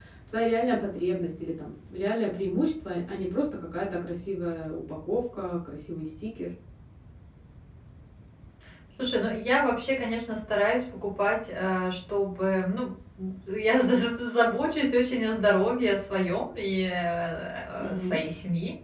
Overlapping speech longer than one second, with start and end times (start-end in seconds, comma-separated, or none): none